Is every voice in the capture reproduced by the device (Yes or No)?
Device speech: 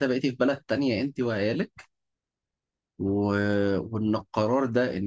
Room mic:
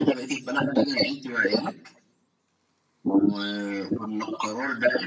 Yes